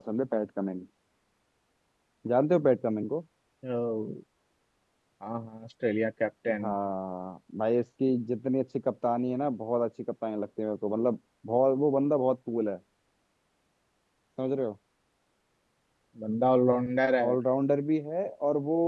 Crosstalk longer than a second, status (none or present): none